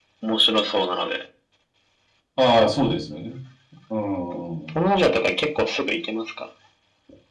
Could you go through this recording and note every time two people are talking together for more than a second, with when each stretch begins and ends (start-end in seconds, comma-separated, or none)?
none